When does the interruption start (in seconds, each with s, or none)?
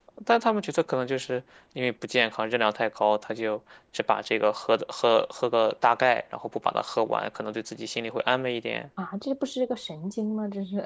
none